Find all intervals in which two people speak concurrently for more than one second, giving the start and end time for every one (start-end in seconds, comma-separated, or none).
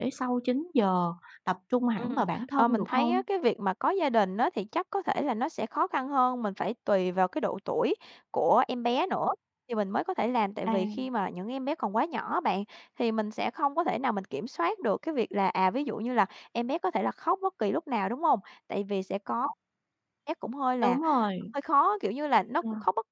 2.0-3.2